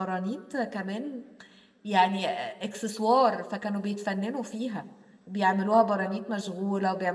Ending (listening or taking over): listening